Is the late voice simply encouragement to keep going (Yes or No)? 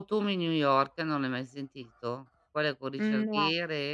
Yes